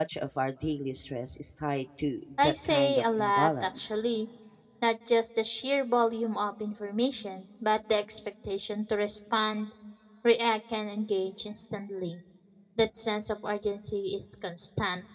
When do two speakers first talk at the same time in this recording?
2.4 s

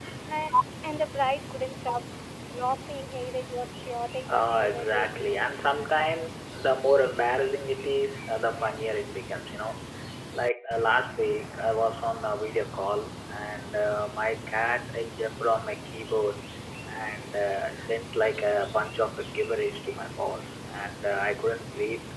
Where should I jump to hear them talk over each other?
4.3 s

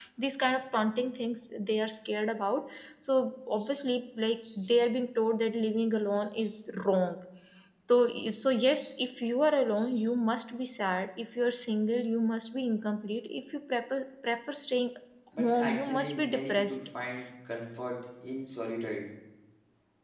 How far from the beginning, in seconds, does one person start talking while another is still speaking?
15.4 s

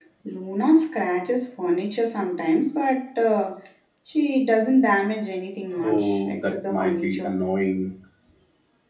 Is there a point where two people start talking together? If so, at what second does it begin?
5.7 s

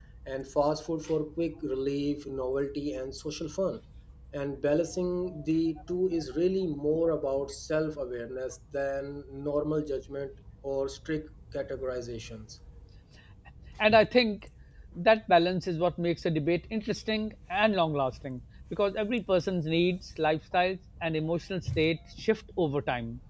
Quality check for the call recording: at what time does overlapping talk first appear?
none

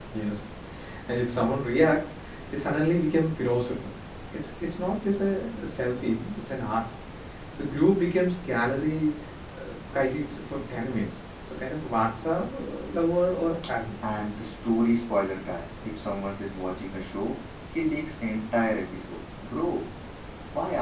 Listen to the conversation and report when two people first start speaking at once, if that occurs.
none

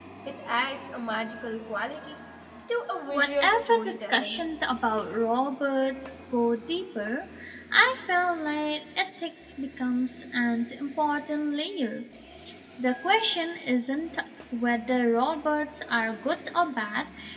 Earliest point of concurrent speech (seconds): 3.1 s

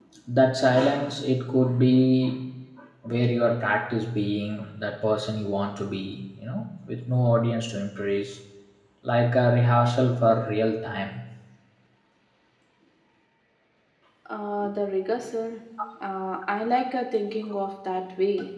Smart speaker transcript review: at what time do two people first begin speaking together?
none

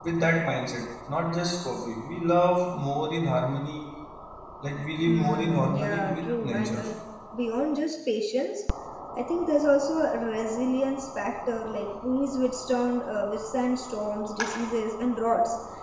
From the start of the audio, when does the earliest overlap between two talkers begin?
5.1 s

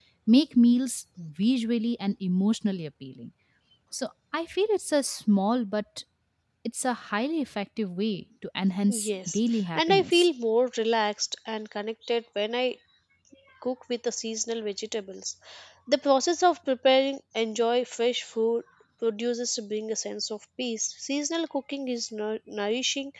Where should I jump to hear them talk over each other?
8.9 s

